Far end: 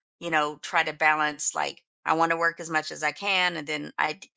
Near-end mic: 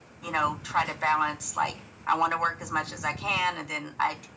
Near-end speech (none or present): none